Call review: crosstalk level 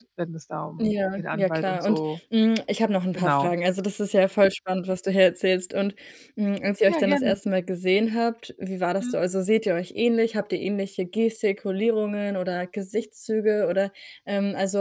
present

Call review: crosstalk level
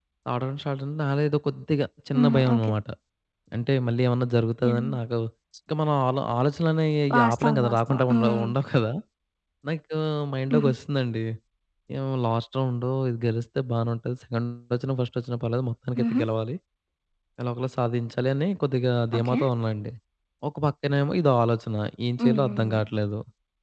present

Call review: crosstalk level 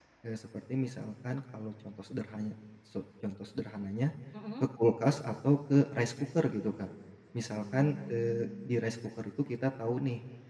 present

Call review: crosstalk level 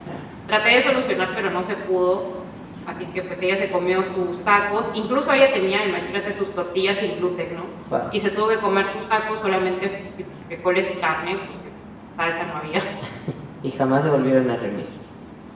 none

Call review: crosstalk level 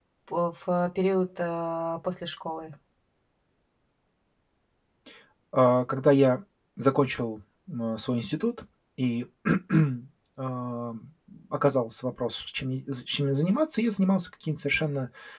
none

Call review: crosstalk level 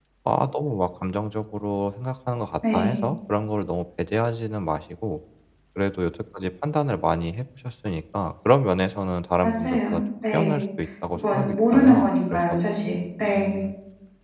present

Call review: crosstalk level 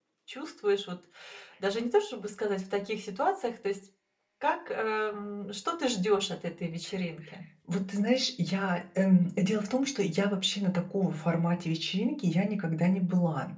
none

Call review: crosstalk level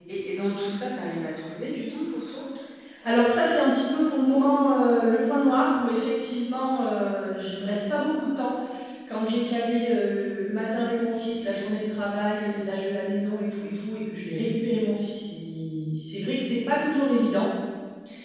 none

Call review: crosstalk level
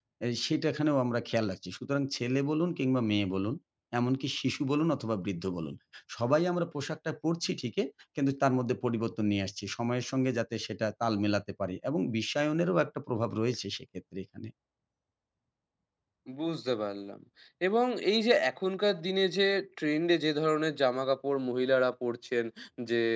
none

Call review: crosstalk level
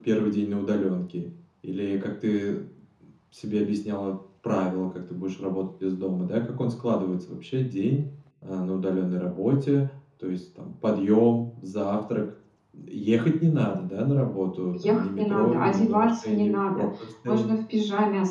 present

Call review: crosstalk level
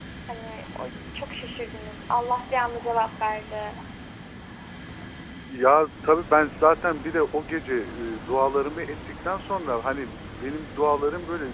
none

